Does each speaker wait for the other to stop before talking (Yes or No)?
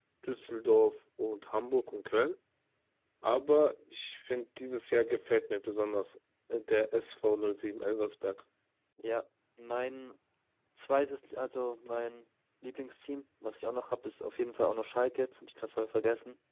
Yes